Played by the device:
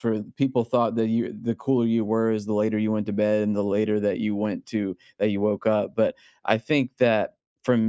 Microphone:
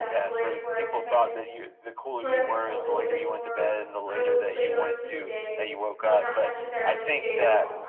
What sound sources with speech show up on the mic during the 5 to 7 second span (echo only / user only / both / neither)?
both